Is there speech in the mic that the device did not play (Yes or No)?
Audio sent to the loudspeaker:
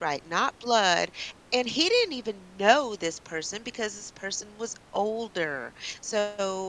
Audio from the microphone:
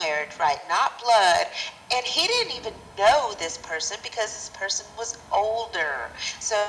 No